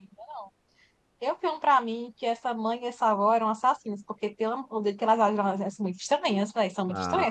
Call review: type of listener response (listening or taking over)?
taking over